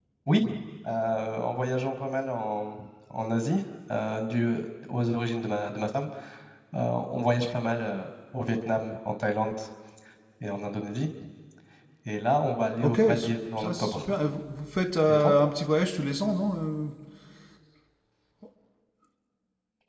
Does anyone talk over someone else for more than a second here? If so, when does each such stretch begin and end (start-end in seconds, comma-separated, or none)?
12.8-14.0